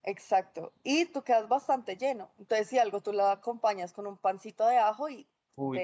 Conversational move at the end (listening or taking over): taking over